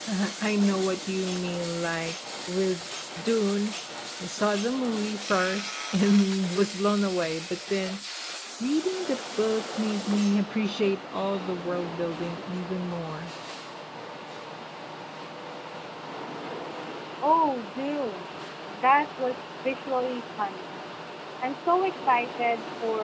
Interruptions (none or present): none